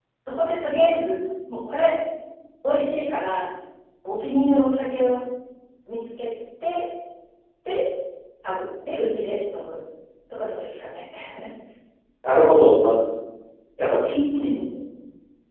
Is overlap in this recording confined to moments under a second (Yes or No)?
Yes